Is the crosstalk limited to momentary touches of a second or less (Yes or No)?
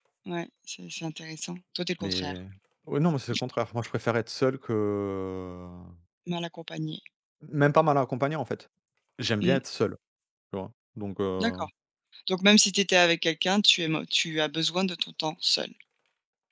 Yes